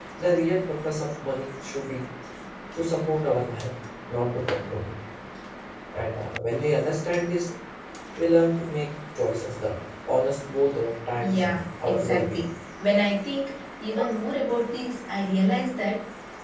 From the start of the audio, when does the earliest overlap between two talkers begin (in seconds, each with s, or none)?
11.2 s